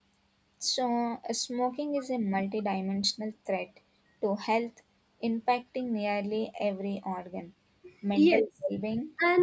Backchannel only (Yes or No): No